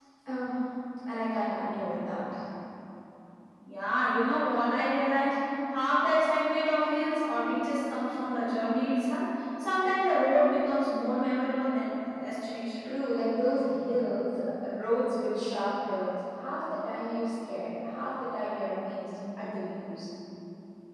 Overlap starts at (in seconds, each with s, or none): none